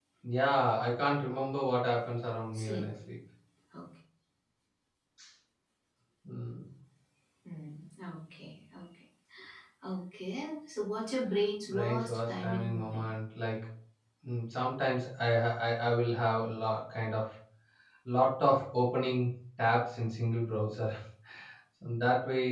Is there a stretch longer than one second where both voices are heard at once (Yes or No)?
Yes